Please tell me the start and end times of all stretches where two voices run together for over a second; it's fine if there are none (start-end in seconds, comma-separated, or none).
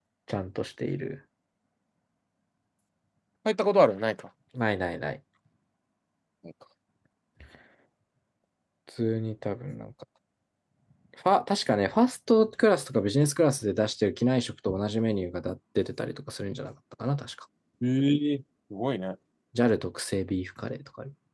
none